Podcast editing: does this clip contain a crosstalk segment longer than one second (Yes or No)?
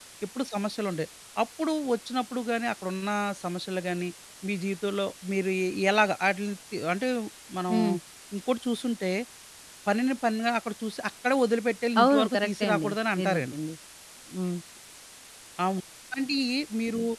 Yes